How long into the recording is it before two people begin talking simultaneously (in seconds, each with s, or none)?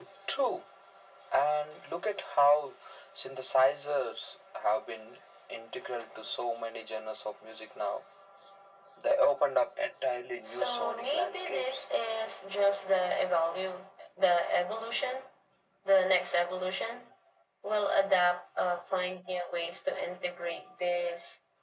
10.4 s